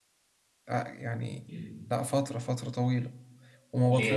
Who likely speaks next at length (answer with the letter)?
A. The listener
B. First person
B